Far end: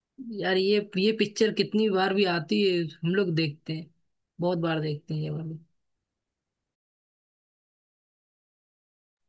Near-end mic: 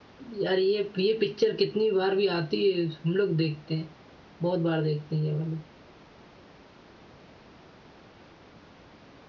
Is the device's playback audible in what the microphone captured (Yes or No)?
Yes